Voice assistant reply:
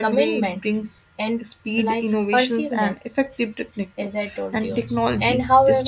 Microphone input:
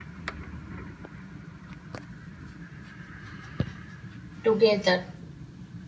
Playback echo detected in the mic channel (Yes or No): No